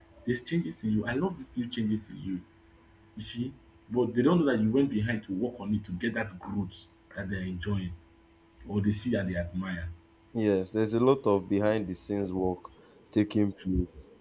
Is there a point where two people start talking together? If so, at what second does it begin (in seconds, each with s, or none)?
none